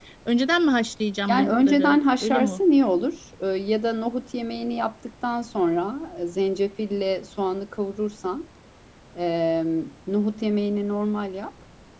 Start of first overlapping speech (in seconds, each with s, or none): 1.3 s